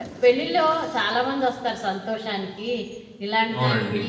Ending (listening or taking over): listening